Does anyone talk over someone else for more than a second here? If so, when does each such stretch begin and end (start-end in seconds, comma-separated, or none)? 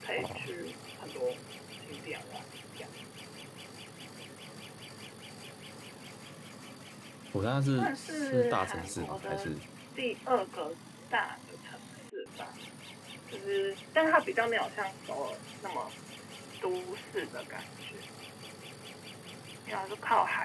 7.7-9.5